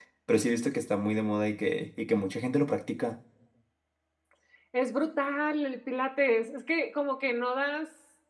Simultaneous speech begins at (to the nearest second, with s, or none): none